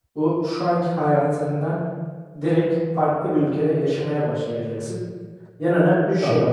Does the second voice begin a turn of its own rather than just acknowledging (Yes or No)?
No